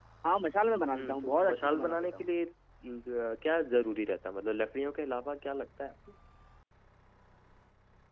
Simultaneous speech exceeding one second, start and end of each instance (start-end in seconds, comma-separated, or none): 0.9-2.3